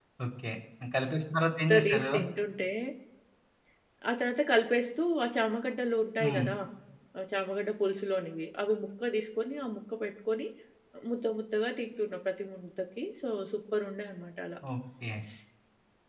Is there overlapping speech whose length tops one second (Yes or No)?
No